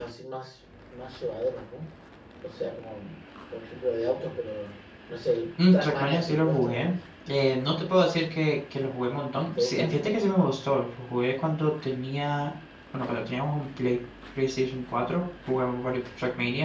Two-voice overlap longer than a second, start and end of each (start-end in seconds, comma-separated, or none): 5.7-6.9